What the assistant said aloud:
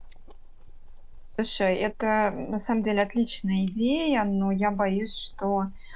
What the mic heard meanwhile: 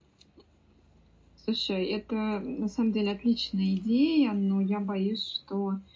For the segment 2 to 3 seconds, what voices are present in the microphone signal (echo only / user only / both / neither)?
echo only